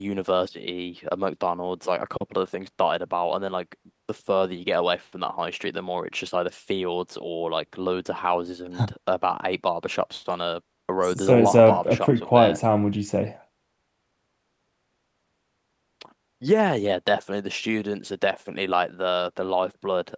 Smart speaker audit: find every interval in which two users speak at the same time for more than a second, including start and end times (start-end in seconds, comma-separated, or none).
11.1-12.6